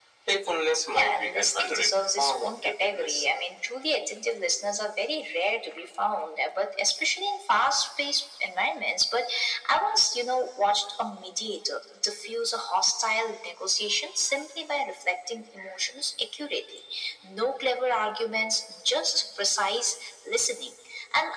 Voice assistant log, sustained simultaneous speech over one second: present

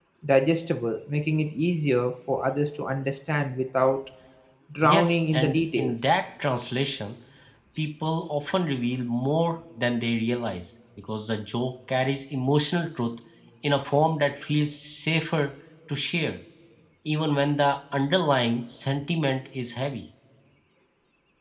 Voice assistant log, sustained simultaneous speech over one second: present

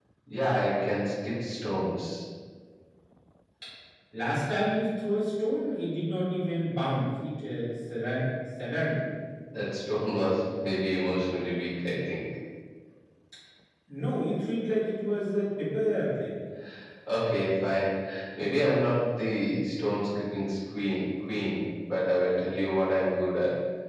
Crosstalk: none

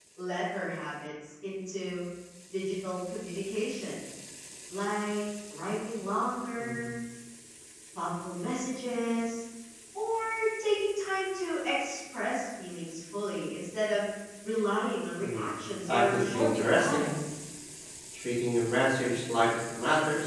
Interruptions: present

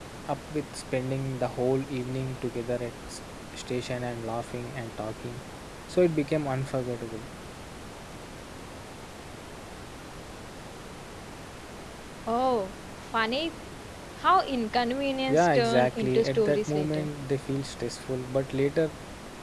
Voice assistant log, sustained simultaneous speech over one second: present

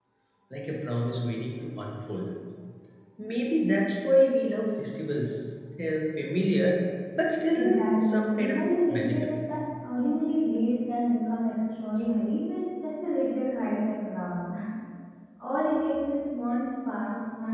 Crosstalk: present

